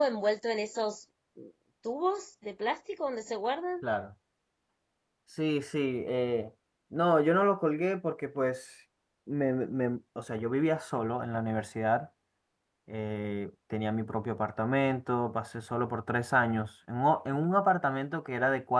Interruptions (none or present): none